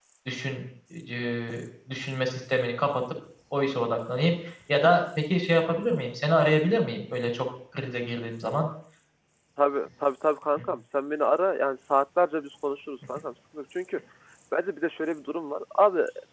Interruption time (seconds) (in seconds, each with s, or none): none